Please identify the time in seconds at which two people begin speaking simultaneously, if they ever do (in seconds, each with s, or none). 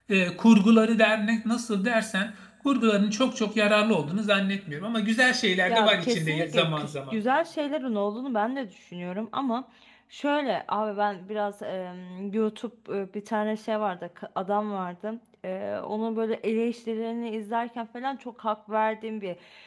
5.7 s